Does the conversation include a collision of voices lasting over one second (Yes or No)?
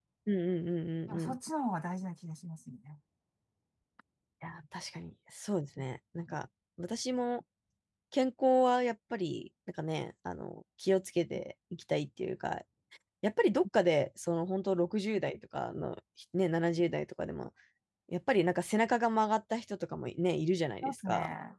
No